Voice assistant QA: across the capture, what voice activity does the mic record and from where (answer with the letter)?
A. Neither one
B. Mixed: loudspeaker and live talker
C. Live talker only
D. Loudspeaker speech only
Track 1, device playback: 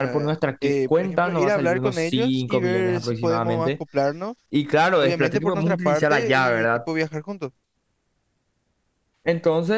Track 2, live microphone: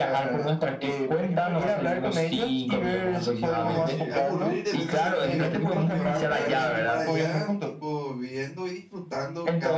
B